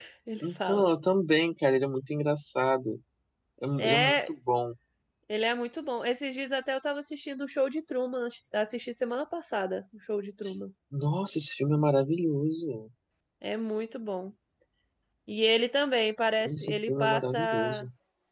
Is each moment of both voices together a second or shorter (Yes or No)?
No